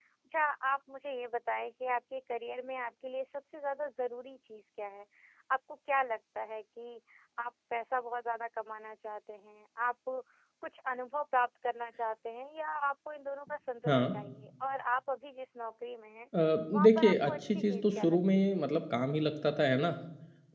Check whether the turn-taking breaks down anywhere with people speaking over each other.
Yes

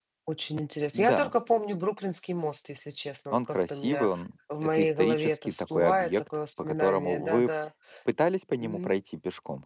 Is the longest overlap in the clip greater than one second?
Yes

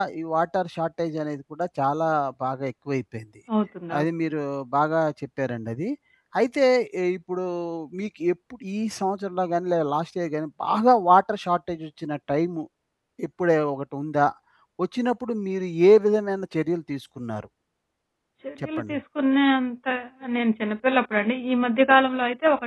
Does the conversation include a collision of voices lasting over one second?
No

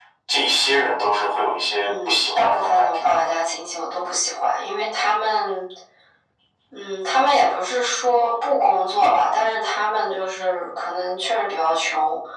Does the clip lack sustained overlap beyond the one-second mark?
No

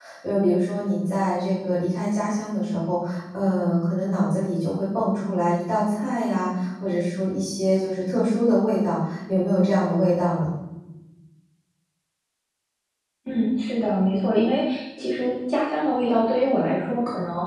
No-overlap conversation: Yes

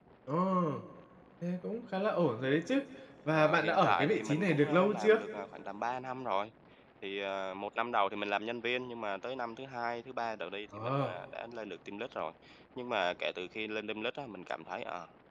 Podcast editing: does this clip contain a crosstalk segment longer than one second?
Yes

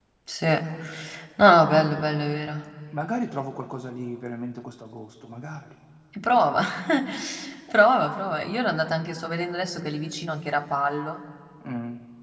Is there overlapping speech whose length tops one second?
No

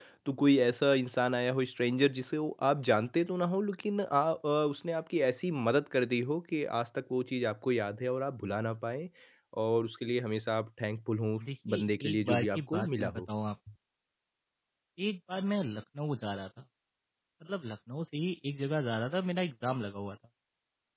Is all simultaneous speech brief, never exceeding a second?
No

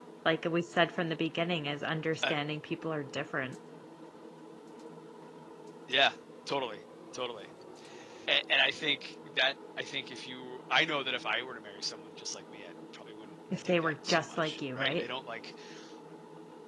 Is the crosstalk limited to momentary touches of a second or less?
No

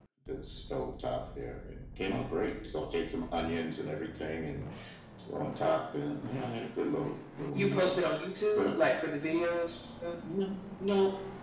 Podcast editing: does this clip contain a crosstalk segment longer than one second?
No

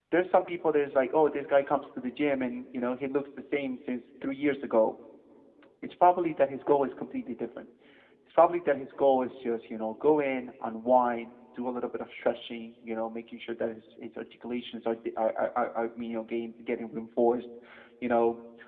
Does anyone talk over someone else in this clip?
No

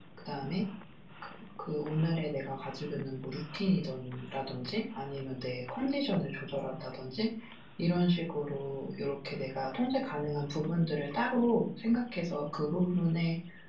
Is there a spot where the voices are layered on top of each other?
No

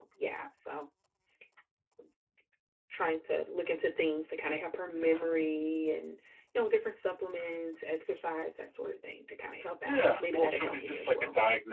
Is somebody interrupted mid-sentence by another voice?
Yes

